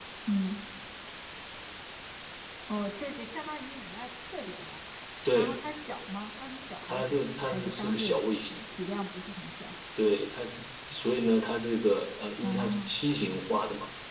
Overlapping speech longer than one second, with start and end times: 6.9-8.2

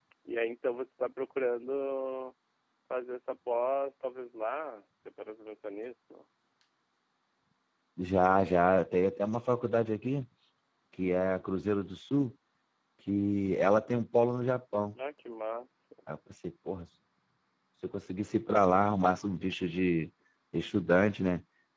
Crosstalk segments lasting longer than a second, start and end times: none

